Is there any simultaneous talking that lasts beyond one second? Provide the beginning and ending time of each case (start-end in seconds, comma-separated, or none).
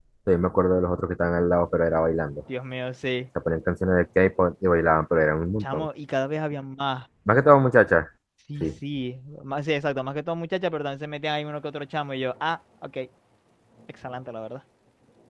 none